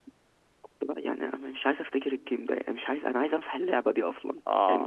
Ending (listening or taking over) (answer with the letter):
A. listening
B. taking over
B